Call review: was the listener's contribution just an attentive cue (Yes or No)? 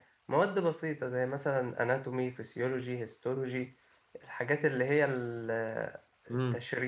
Yes